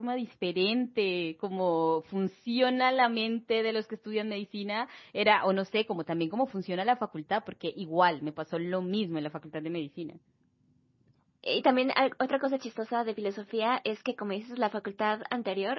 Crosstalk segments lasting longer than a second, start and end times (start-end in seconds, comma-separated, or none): none